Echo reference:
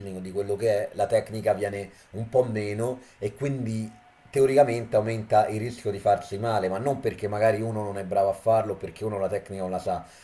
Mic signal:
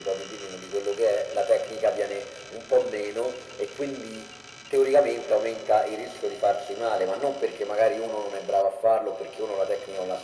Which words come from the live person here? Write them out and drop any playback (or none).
none